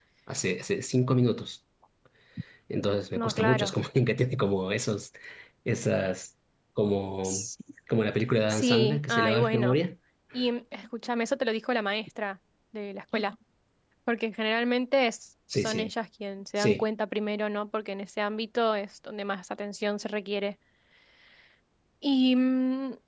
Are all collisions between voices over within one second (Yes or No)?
No